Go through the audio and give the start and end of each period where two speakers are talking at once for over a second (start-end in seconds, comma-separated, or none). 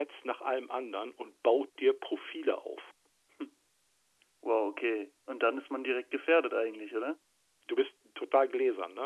none